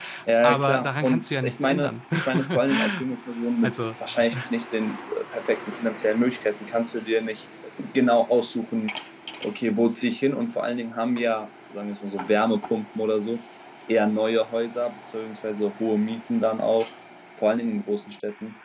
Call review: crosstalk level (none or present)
present